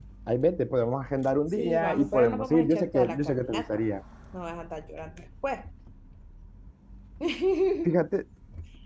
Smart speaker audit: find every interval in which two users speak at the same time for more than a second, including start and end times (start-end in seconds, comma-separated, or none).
1.5-3.8